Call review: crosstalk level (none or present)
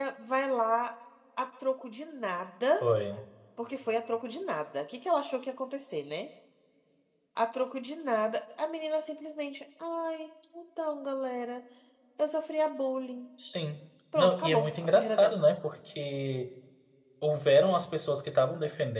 present